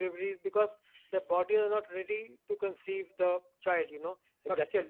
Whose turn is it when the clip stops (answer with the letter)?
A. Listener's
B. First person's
B